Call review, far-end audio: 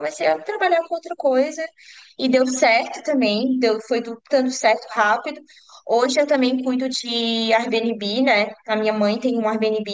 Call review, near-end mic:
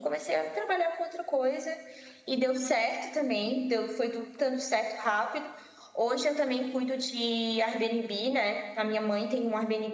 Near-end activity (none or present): none